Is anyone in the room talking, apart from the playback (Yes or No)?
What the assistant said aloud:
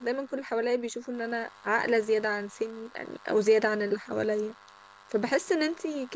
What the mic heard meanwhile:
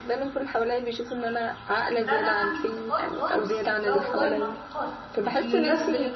Yes